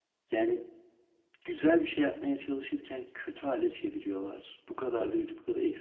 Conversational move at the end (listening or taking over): listening